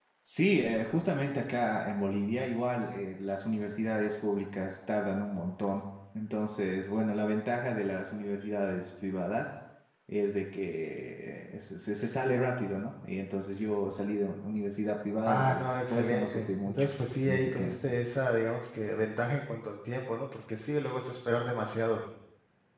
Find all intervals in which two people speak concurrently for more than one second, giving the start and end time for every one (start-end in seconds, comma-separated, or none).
15.2-16.8